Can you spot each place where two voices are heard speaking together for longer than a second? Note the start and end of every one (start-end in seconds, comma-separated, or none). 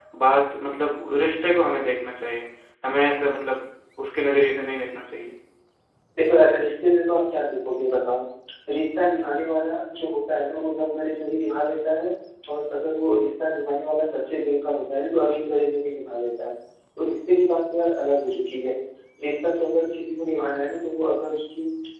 none